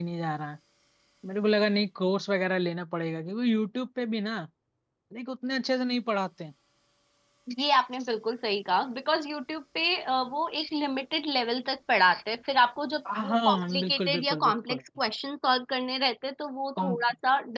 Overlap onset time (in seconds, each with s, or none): 13.0 s